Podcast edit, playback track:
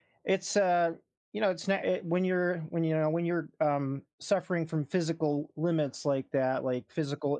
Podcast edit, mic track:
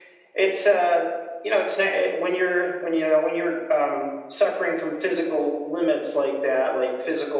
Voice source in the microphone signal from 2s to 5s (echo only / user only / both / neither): echo only